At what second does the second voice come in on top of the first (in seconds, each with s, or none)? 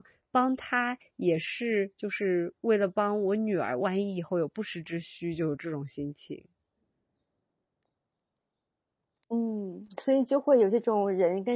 none